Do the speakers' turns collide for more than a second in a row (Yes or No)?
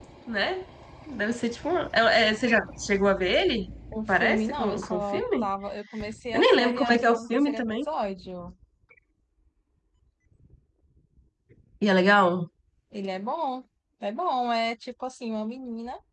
Yes